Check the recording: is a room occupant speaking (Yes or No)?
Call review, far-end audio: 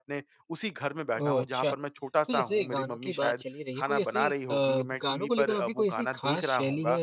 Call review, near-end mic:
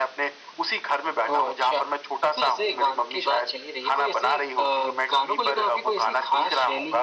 No